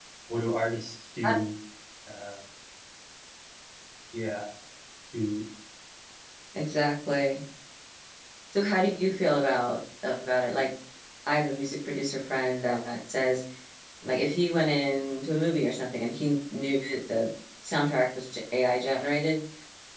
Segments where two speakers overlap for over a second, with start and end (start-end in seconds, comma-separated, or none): none